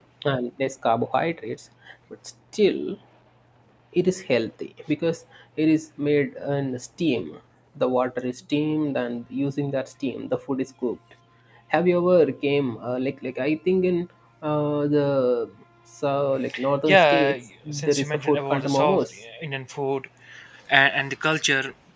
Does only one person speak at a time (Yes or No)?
No